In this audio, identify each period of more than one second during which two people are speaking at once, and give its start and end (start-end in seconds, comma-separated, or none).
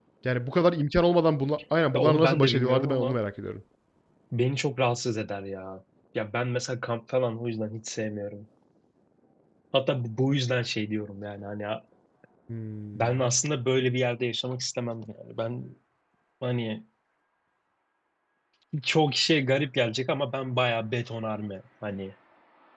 1.9-3.2